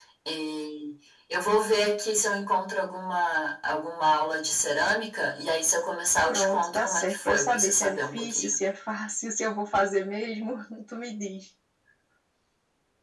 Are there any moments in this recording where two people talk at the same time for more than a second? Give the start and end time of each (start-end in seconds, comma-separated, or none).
6.3-8.6